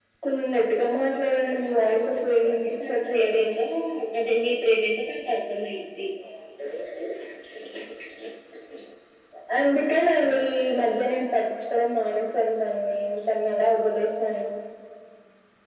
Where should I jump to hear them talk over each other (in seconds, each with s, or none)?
1.7 s